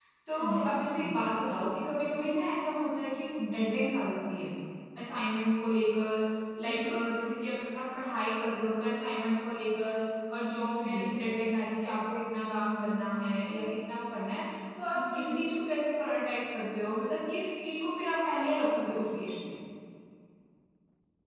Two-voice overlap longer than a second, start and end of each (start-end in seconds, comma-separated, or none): none